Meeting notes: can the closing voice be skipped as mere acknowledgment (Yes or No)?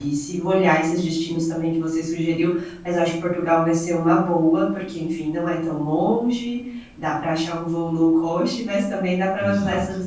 Yes